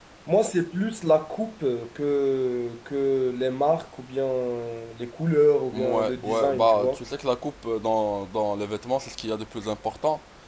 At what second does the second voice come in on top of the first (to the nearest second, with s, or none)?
6 s